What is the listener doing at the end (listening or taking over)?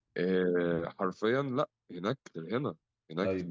listening